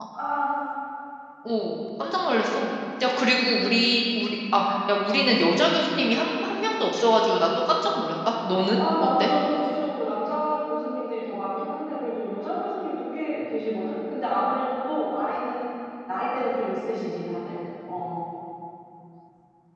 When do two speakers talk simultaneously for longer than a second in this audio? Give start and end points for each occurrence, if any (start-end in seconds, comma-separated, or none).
none